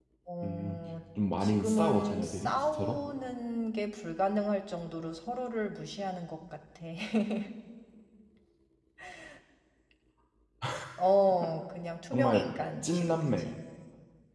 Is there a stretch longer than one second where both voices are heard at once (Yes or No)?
Yes